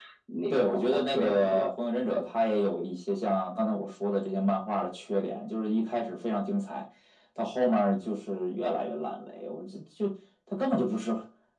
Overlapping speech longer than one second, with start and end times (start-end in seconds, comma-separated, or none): 0.5-1.7